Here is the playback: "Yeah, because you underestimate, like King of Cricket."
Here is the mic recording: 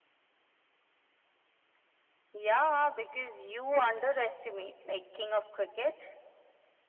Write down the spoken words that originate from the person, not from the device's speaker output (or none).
none